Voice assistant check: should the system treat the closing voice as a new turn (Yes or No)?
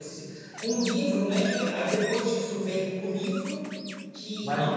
Yes